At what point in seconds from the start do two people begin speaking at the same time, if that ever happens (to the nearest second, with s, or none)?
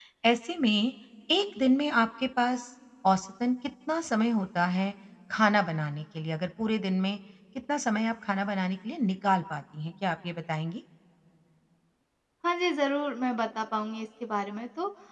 none